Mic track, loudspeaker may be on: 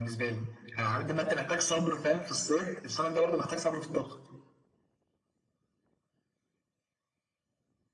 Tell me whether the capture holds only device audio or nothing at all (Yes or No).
Yes